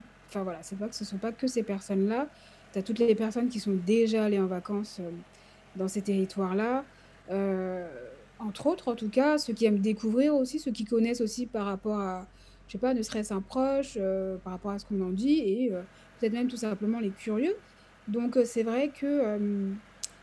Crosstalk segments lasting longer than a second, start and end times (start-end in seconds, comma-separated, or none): none